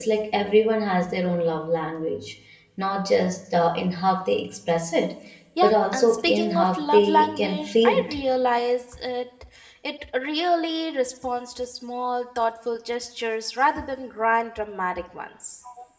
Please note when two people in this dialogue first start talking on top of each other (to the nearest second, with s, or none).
6 s